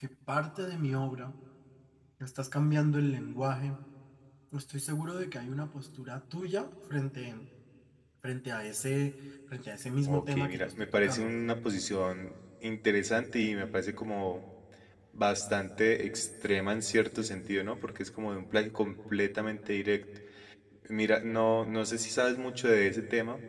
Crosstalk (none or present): present